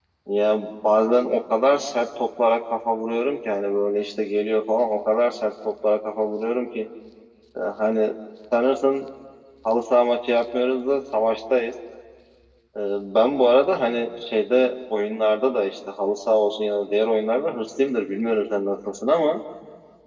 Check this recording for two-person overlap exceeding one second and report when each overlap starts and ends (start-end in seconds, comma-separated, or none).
none